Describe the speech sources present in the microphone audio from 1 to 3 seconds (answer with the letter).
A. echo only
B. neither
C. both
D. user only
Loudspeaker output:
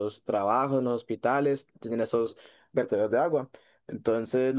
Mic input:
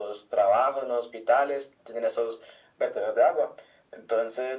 A